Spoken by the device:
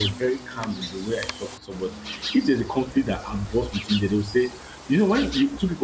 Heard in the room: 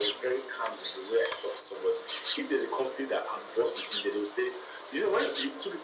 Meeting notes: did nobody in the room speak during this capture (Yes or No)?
Yes